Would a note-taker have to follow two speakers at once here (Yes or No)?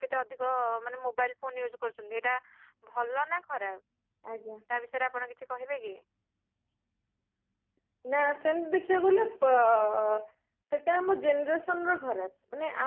No